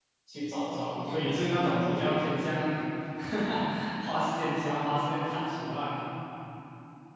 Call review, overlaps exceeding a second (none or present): present